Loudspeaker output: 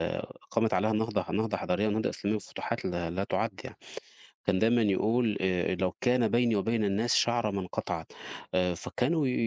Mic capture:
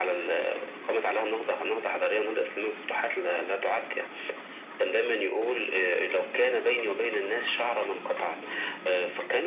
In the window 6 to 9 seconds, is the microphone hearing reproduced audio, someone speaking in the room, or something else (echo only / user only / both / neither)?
echo only